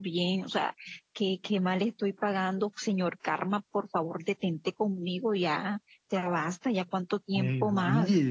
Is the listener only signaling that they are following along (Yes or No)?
No